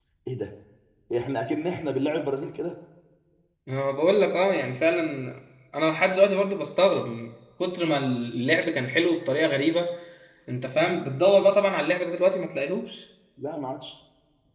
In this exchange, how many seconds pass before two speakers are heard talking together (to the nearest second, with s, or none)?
none